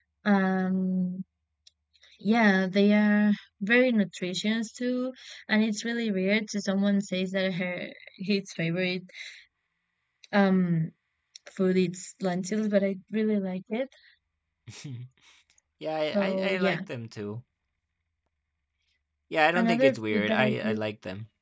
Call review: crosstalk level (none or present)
present